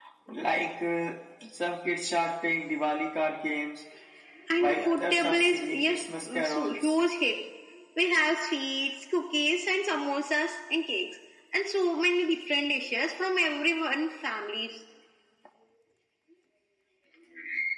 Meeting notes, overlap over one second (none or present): present